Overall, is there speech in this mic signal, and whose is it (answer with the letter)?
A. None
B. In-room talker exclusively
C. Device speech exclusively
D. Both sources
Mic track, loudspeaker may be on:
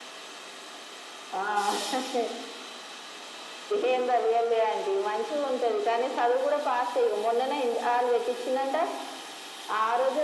C